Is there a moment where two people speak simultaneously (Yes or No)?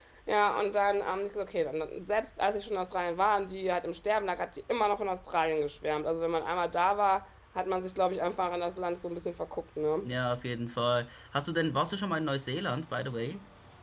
No